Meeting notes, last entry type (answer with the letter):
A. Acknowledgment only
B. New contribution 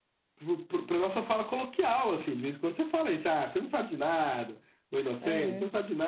A